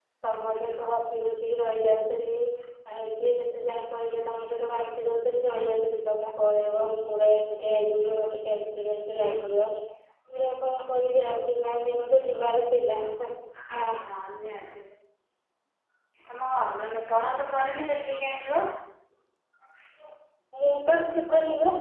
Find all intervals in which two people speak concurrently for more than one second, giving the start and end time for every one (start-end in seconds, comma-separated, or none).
none